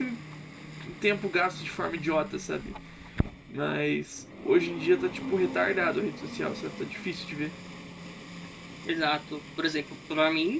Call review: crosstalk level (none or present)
none